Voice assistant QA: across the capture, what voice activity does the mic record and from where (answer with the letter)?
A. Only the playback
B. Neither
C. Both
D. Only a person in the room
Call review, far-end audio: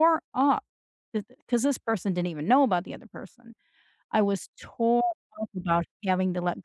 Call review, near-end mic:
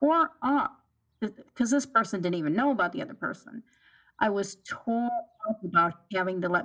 A